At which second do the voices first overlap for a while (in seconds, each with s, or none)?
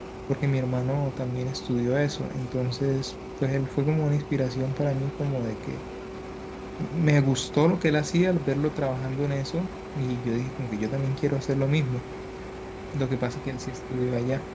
none